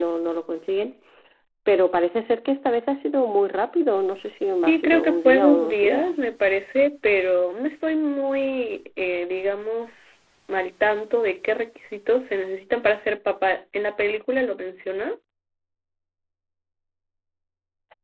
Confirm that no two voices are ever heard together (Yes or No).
No